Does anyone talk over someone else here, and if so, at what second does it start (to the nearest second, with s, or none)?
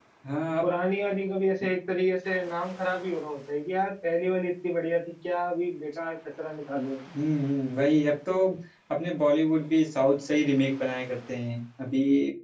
none